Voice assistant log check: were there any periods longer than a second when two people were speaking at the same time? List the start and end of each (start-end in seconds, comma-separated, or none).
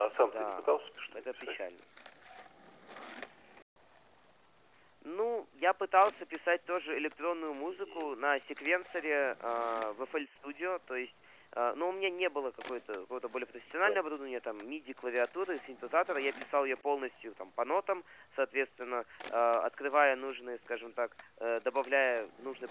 none